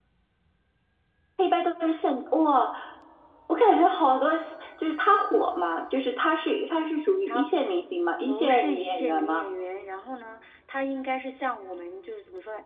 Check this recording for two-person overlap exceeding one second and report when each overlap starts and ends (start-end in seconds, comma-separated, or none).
8.3-9.5